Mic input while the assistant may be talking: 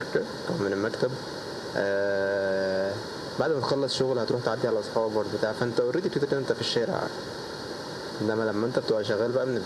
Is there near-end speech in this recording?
No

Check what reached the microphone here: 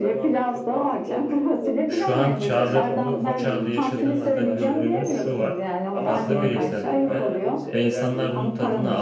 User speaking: Yes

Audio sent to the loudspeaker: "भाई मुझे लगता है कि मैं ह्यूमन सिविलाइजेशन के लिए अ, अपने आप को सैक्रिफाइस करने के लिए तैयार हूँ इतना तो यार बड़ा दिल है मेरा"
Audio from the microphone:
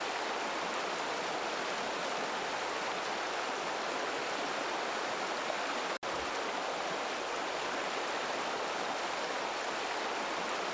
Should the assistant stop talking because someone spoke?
No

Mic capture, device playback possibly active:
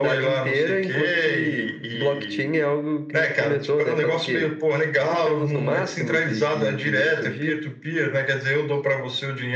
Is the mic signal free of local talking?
Yes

